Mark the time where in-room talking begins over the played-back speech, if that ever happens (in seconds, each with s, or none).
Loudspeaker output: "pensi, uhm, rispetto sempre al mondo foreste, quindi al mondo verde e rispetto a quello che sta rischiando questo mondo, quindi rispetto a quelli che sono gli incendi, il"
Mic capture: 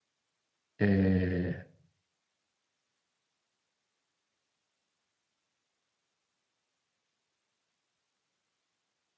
0.8 s